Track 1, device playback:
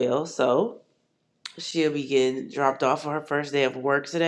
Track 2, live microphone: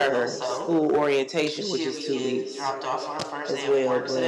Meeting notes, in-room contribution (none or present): present